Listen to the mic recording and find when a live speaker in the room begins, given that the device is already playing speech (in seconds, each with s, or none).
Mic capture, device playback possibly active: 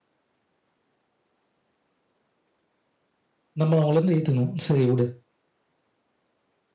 3.6 s